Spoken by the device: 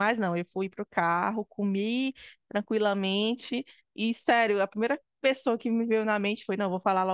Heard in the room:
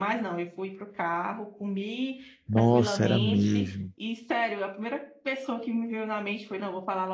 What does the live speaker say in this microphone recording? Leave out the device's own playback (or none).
Nossa, era mesmo.